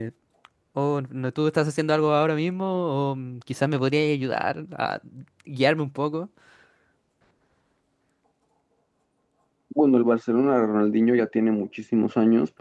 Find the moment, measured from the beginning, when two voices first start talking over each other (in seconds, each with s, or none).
none